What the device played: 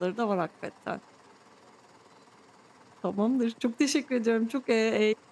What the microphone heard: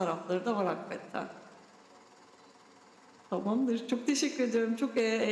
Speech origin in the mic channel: echo only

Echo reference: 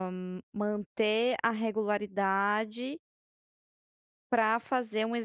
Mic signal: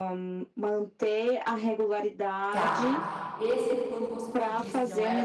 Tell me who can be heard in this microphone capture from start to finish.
both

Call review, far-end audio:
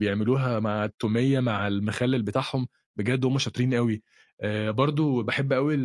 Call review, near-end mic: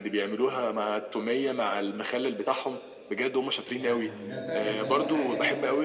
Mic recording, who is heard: both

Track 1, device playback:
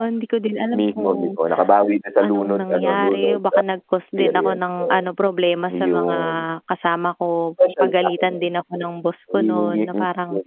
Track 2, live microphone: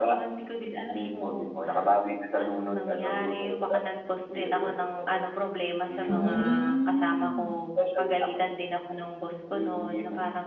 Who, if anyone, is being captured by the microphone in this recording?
both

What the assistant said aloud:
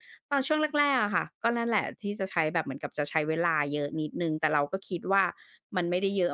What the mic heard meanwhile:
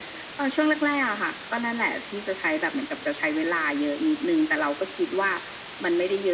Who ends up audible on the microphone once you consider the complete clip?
echo only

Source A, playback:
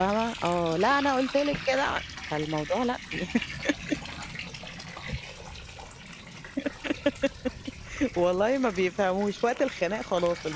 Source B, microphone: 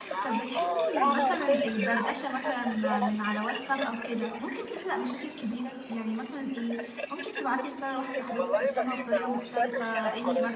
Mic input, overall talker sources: both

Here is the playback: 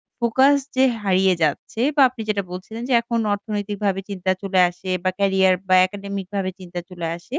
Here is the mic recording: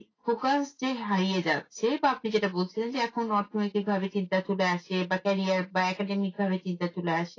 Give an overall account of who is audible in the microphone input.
echo only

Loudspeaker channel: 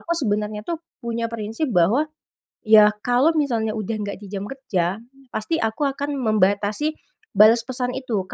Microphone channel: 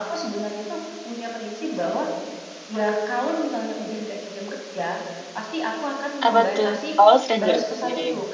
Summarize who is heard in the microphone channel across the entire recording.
both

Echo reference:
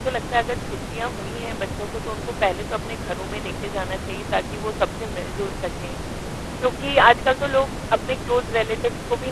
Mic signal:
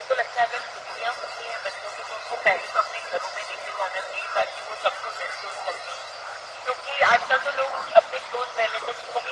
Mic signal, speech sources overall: echo only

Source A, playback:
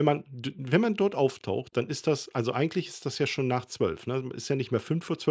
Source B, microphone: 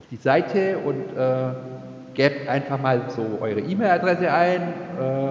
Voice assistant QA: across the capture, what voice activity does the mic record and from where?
user only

